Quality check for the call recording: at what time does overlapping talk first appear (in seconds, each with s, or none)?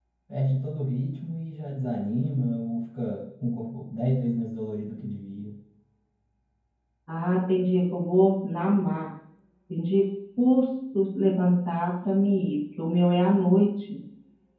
none